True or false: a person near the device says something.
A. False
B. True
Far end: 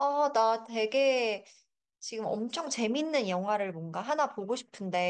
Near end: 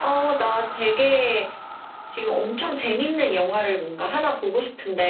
A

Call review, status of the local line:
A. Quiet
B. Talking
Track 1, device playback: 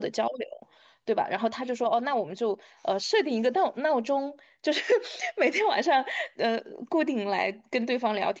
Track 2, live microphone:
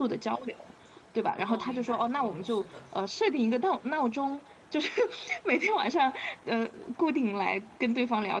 B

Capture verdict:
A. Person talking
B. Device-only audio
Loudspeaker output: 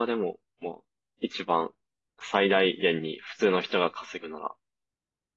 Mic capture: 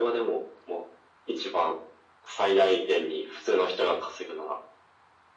B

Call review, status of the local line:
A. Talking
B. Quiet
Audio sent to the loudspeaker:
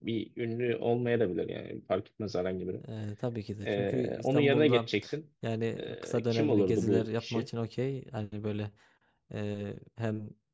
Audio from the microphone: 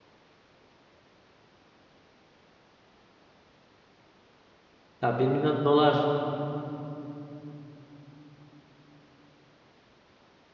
A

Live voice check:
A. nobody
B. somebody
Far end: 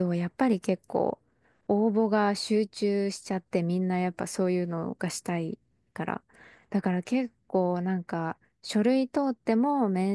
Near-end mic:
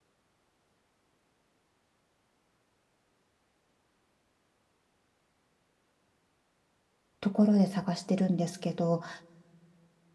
B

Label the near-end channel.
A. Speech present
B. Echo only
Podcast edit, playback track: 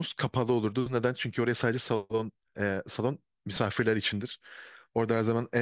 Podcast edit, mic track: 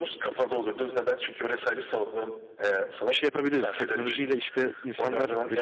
A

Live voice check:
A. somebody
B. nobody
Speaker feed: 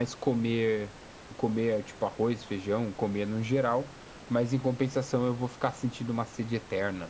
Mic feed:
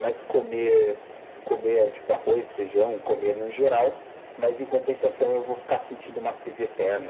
B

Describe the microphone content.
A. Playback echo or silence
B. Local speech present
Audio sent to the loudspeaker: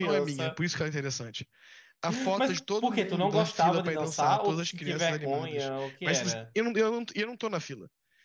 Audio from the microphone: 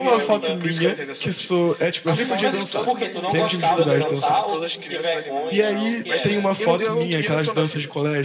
B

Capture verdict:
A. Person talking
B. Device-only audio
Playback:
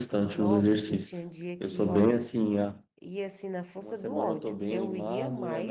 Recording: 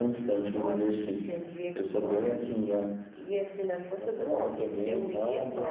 B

